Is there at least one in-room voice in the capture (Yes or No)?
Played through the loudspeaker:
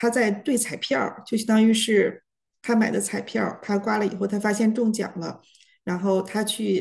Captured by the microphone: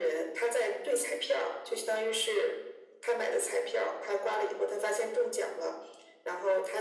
No